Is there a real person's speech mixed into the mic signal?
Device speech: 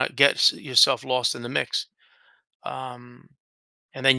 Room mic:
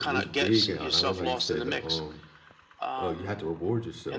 Yes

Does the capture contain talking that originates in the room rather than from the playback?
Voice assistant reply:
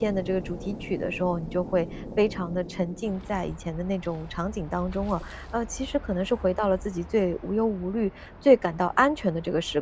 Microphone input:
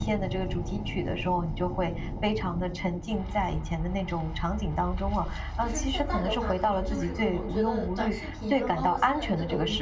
Yes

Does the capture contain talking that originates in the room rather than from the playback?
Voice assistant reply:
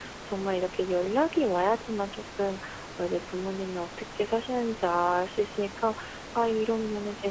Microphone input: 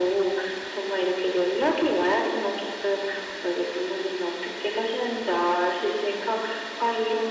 No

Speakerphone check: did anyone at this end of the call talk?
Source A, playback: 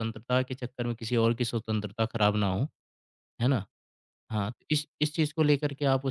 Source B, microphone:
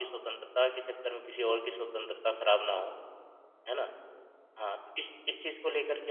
No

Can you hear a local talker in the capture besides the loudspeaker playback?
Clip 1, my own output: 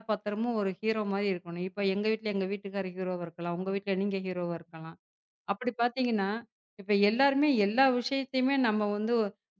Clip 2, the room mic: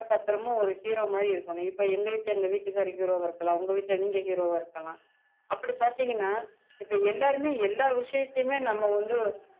No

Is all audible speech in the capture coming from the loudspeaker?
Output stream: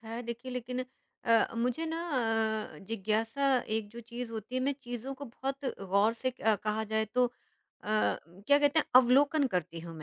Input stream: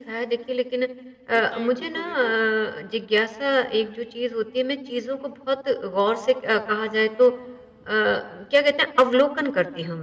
No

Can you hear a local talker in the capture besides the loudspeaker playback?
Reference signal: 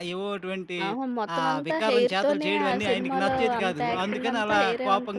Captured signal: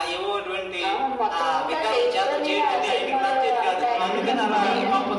Yes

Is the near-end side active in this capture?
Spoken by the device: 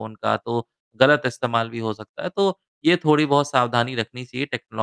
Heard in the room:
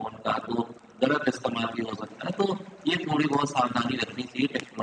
No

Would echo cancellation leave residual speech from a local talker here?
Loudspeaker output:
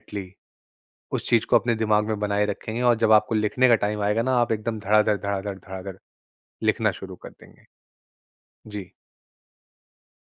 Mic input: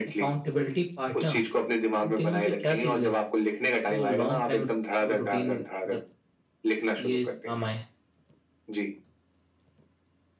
Yes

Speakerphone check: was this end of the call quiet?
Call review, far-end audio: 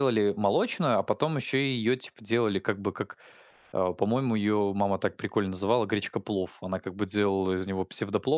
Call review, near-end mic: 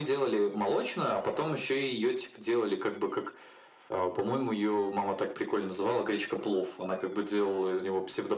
Yes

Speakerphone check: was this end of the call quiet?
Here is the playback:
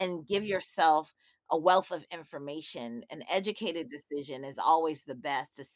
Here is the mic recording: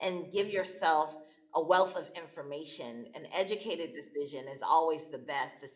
Yes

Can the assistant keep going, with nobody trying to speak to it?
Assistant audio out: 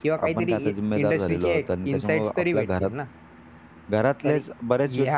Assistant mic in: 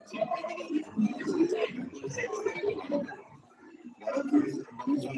Yes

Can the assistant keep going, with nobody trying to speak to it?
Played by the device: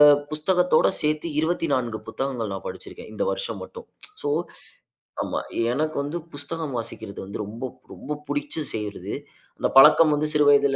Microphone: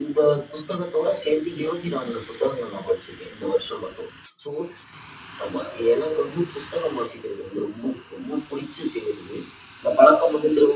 Yes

